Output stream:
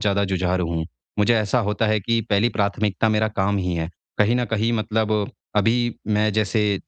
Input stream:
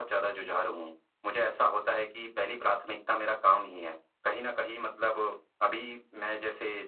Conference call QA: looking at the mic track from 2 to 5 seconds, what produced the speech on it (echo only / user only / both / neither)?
echo only